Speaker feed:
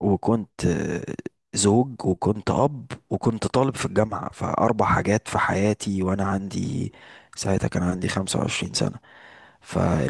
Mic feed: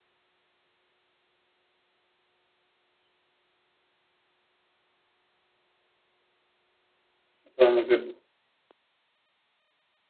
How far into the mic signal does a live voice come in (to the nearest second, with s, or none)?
8 s